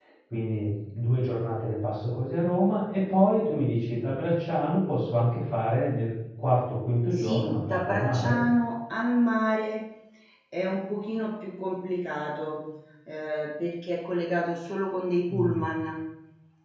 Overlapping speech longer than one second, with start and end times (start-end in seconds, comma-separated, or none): 7.1-8.4